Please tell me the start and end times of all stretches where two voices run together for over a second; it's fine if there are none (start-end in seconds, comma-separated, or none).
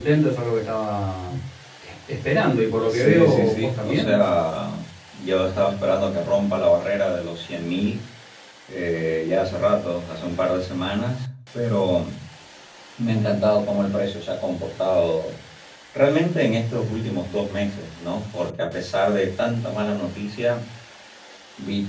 2.9-4.1